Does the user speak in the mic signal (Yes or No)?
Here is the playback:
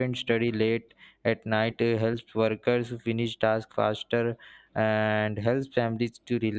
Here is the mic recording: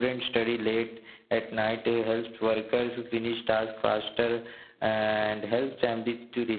No